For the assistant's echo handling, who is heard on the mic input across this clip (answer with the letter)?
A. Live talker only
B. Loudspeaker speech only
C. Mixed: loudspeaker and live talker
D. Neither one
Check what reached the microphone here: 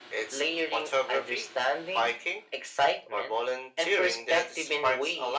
B